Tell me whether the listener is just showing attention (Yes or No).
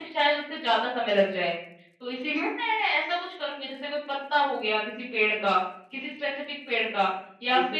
Yes